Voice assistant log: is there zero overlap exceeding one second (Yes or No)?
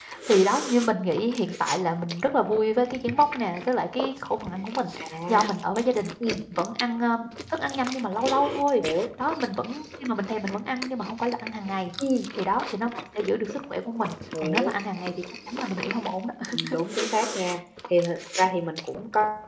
Yes